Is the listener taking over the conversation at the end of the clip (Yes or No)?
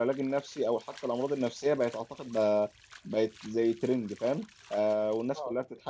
No